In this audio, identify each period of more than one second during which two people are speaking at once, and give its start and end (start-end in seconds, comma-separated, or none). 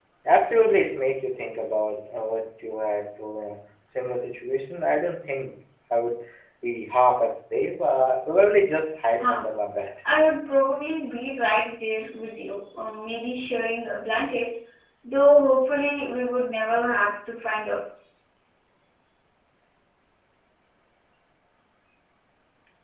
none